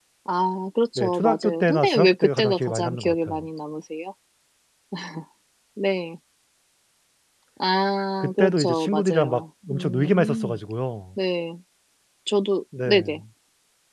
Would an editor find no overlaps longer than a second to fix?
No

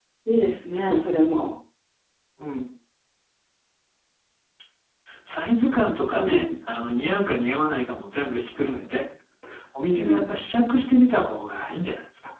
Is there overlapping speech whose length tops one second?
No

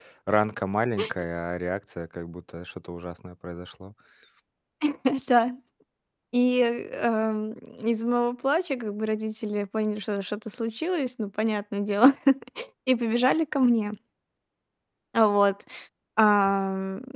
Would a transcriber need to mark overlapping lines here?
No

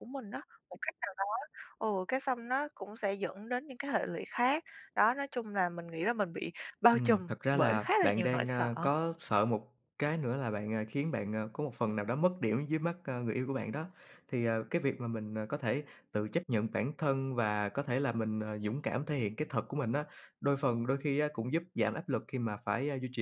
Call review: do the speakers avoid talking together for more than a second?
No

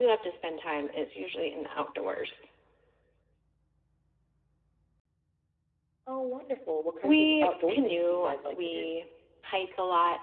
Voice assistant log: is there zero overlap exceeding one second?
No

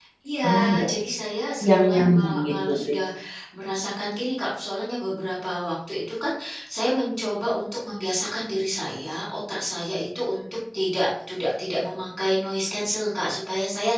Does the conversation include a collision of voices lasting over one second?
Yes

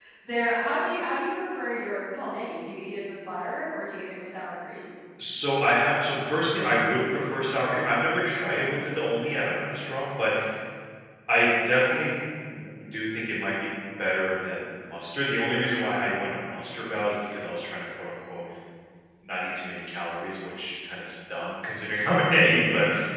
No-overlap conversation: Yes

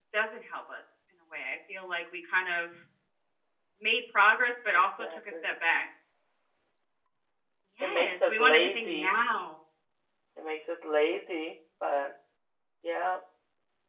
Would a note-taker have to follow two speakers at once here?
Yes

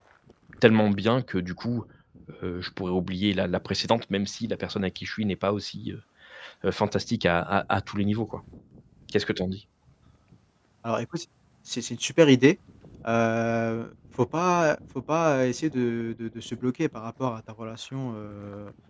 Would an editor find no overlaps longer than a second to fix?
Yes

